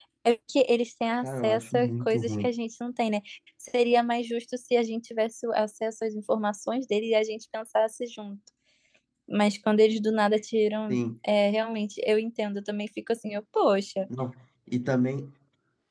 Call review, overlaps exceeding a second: present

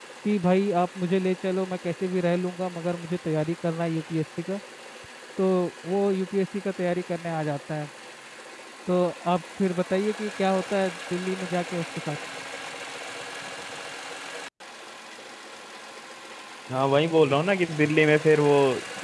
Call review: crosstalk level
none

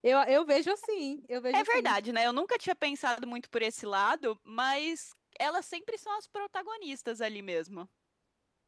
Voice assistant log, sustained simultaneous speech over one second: none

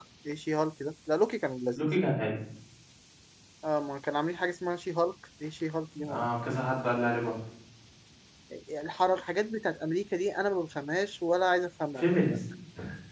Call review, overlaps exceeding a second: none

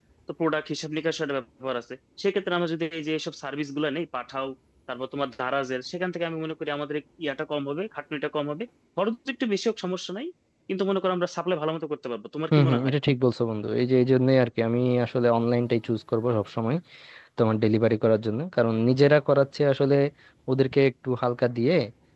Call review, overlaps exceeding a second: none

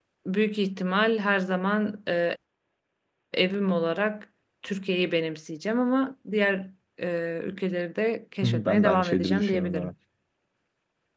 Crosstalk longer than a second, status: present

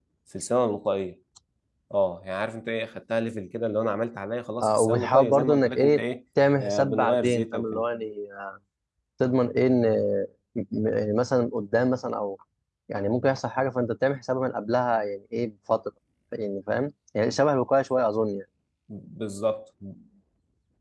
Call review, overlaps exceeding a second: present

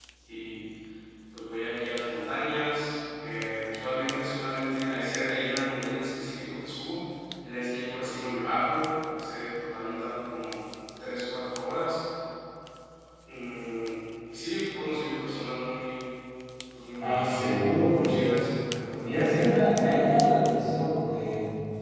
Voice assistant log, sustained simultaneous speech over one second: present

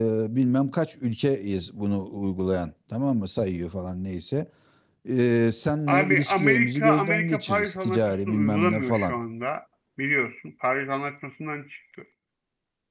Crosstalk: present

